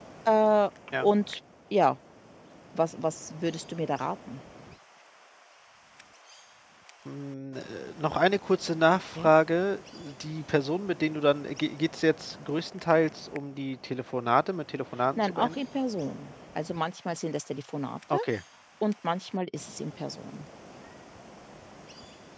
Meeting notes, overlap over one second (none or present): none